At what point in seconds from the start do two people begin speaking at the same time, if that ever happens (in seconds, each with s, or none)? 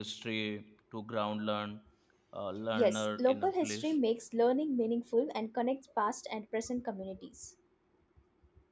2.7 s